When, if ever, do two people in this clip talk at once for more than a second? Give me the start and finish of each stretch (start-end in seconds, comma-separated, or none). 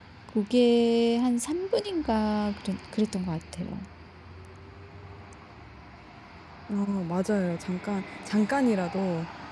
none